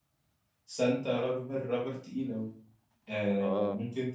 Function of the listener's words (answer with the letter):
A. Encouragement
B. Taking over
A